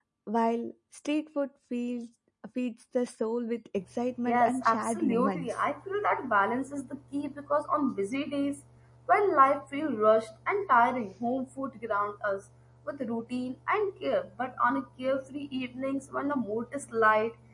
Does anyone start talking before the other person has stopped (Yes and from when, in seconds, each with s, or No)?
Yes, from 4.3 s